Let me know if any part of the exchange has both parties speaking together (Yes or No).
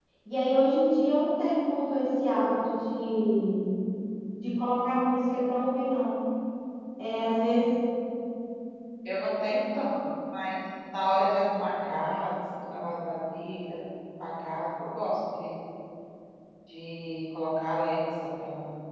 No